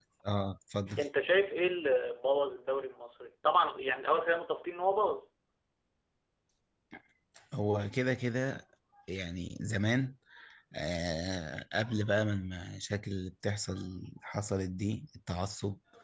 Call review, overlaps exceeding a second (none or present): none